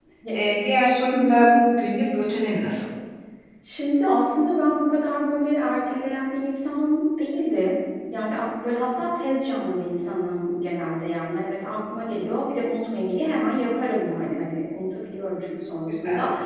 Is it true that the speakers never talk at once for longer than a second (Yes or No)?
Yes